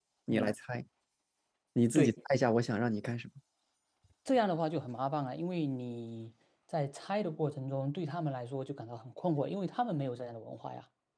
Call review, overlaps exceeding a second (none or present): none